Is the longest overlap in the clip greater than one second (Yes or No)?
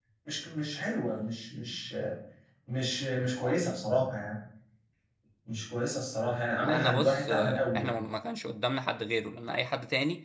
Yes